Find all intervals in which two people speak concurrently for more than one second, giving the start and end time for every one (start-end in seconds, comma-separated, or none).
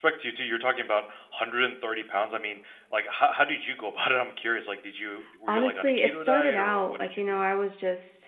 5.5-7.4